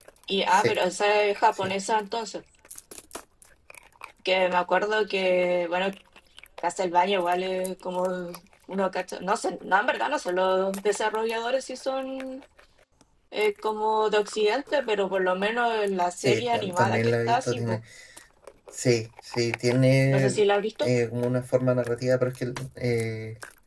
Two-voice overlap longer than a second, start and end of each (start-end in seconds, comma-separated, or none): 16.2-17.8